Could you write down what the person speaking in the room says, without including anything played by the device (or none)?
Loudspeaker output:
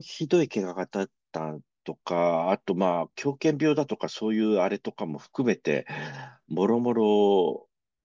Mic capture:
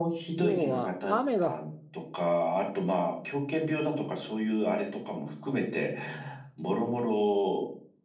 要は雨が、